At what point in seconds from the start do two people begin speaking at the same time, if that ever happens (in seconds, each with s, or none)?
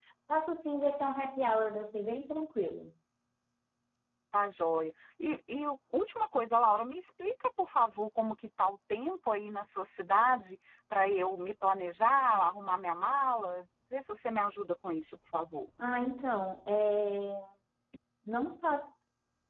none